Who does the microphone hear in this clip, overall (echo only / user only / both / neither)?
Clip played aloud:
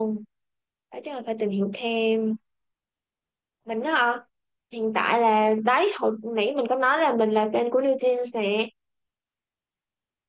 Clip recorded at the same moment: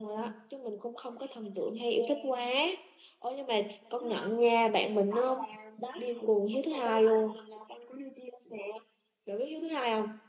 both